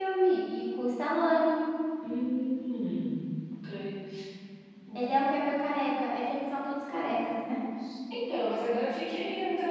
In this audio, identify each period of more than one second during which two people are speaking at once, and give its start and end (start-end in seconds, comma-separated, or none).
none